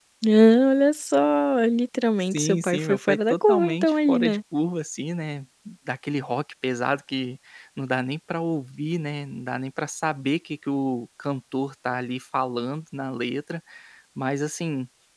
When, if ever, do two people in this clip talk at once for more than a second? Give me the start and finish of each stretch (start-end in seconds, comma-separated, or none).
2.2-4.4